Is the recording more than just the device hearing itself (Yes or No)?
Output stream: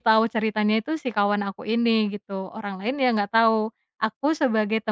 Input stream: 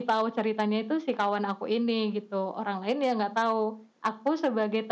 No